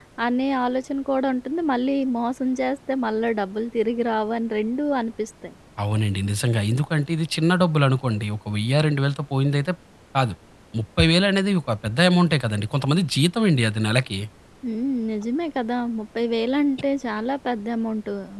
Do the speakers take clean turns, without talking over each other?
Yes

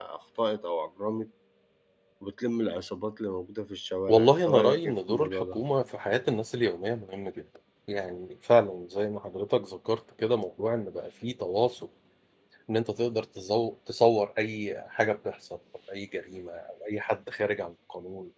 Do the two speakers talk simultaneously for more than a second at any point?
Yes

